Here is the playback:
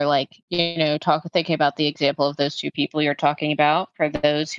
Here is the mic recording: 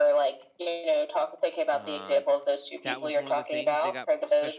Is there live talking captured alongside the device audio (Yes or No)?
Yes